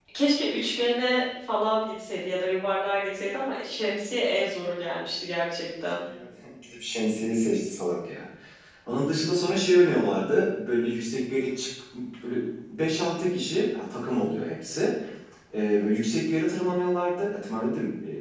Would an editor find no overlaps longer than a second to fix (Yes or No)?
Yes